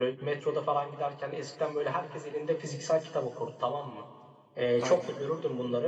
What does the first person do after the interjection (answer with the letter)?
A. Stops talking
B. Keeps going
B